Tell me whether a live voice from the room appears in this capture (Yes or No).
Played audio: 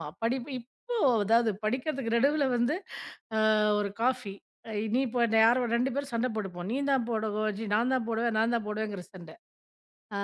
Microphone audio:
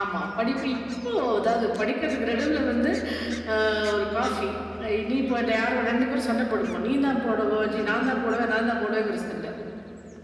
No